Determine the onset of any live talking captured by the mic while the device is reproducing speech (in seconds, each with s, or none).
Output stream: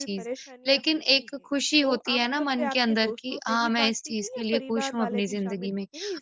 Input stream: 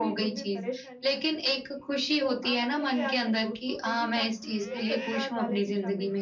none